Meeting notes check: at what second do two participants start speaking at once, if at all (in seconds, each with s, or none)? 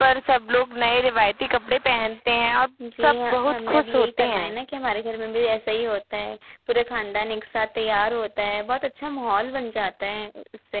2.8 s